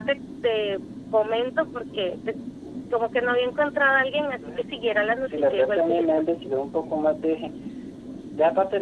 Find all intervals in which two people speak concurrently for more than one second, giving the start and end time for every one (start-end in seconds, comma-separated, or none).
4.2-6.0